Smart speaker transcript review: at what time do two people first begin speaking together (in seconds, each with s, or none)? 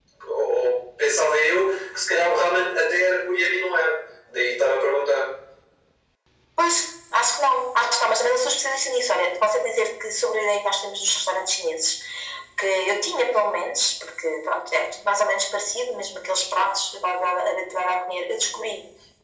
none